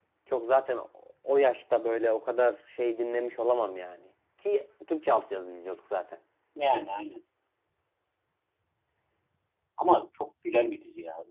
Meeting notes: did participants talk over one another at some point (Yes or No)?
No